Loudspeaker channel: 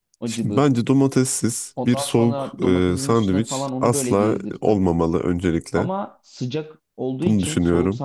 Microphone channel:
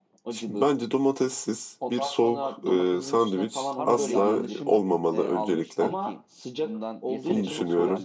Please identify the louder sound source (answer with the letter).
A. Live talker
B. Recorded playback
B